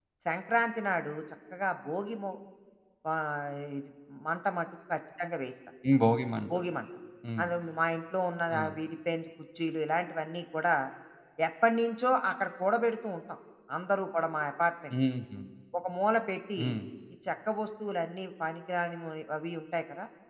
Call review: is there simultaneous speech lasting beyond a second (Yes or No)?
No